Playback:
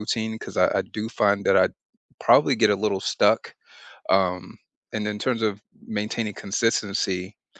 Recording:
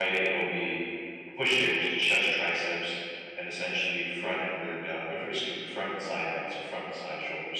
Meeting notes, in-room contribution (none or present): present